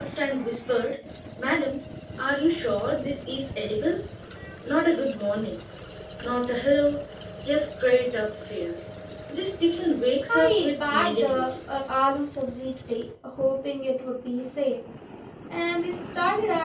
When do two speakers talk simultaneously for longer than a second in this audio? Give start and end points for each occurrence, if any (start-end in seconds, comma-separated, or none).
10.3-11.5